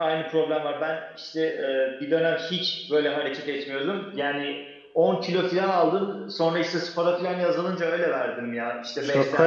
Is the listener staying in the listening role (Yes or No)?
No